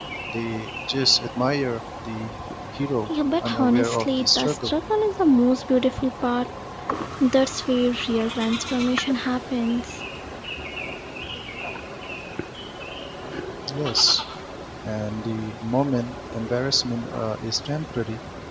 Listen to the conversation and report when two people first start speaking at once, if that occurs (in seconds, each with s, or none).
3.0 s